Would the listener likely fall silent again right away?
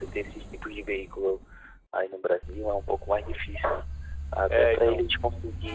Yes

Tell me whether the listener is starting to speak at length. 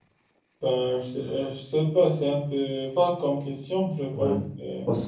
Yes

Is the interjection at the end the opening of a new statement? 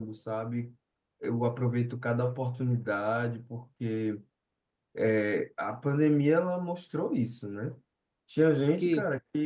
No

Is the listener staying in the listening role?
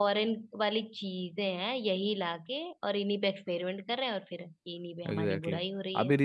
No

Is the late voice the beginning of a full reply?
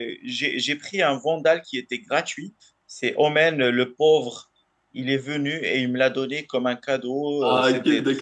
Yes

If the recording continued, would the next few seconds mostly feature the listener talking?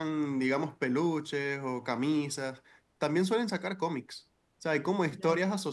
No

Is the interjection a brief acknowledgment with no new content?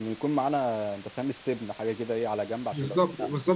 No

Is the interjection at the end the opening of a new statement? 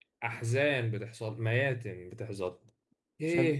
No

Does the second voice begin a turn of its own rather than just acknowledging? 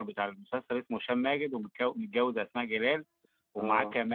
No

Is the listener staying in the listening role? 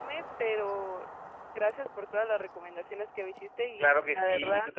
No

